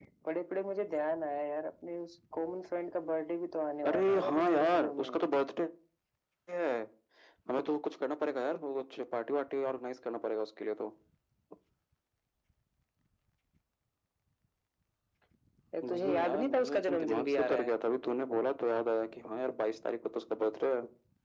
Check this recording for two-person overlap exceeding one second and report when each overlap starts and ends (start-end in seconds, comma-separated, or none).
3.9-5.2, 15.8-17.7